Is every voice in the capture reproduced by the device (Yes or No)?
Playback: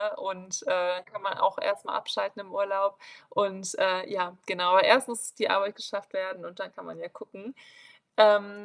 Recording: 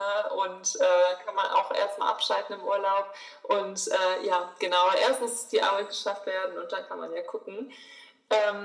Yes